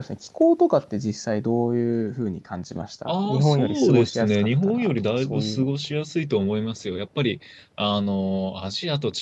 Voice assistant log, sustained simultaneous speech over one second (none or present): present